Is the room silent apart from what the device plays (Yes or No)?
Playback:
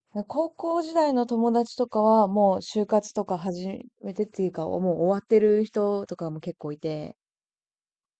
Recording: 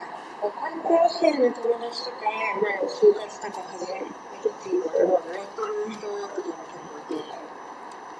Yes